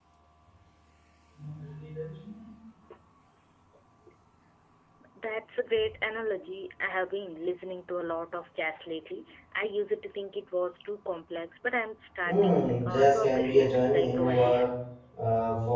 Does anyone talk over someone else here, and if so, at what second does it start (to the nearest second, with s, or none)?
12 s